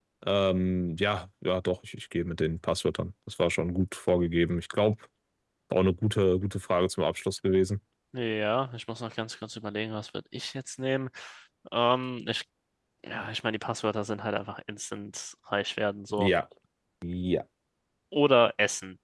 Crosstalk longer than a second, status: none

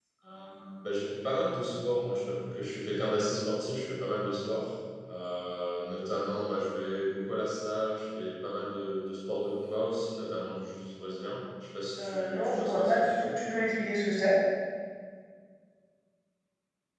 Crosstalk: present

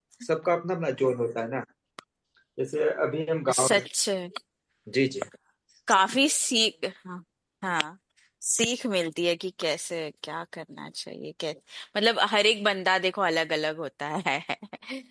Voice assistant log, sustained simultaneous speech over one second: none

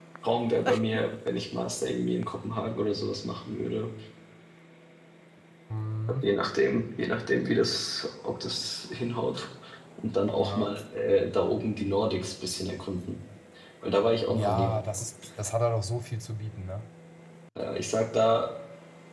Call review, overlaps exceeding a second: none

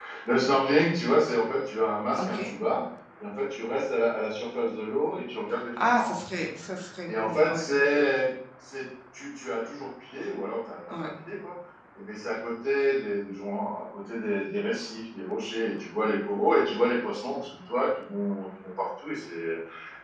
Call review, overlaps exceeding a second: none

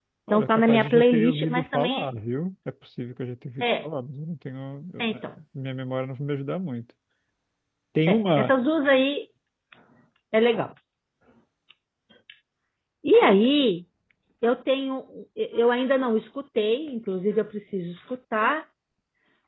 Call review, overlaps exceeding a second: present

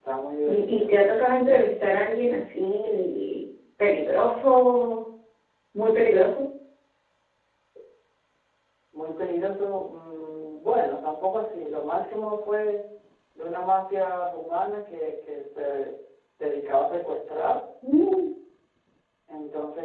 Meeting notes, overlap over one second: none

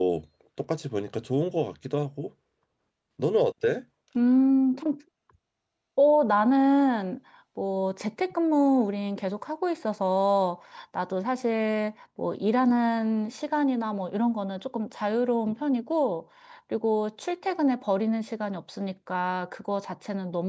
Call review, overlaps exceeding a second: none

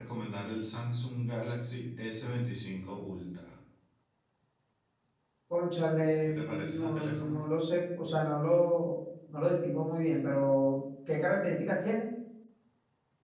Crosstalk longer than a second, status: present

